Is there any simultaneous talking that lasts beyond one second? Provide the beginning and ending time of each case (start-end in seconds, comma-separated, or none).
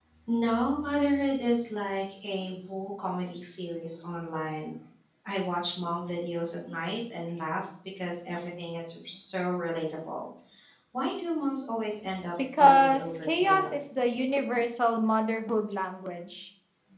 12.6-14.0